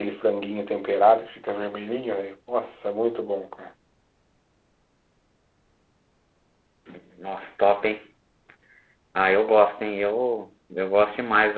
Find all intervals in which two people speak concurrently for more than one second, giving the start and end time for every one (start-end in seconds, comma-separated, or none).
none